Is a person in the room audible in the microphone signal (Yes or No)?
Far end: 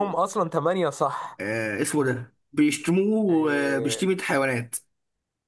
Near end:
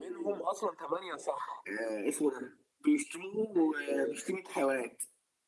No